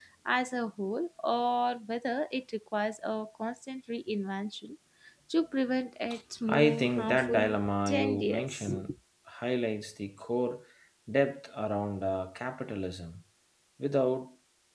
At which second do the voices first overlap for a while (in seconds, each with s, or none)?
6.5 s